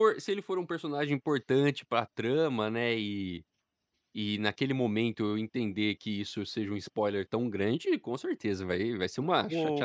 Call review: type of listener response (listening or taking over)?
taking over